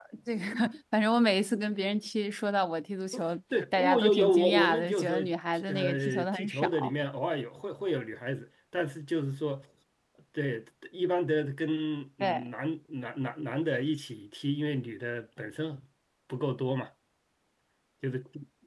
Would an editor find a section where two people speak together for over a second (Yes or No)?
Yes